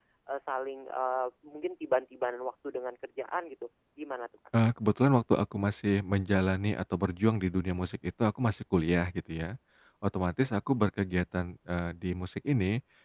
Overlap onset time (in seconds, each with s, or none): none